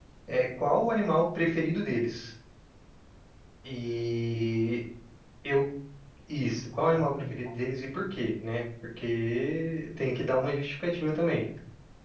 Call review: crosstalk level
present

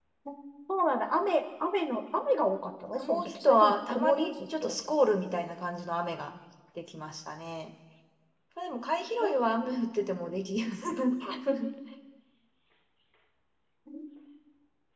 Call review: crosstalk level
present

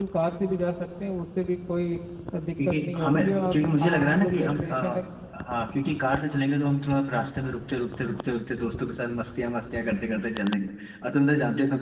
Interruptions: present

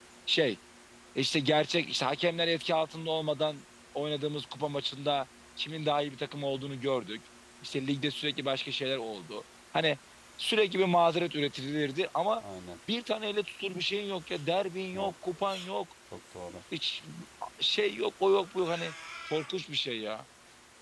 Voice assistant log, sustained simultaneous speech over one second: none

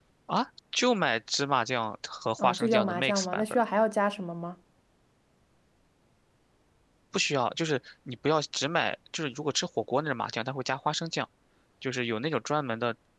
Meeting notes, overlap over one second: present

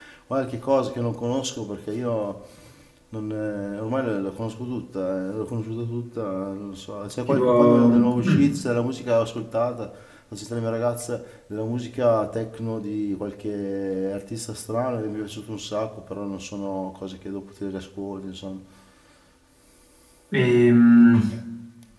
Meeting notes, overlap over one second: present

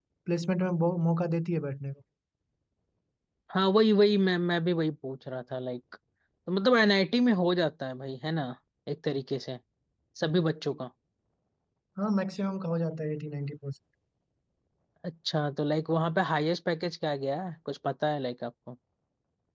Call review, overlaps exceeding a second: none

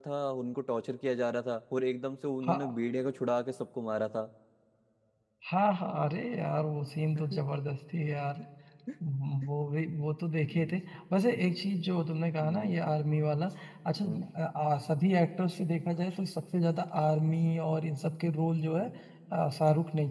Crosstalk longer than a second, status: none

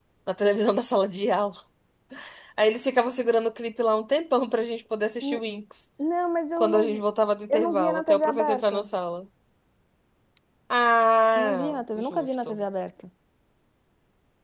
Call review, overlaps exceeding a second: present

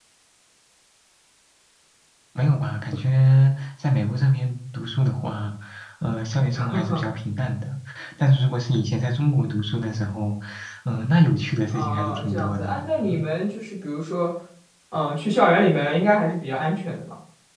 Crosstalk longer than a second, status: present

